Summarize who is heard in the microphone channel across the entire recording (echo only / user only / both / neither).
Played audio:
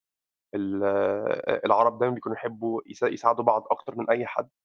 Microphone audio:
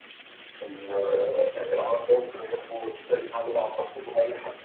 echo only